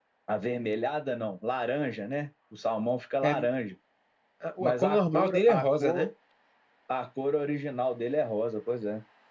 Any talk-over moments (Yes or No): Yes